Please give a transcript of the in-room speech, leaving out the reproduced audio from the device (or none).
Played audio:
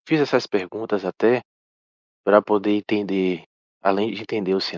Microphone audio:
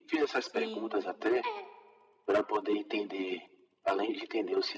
Sim. É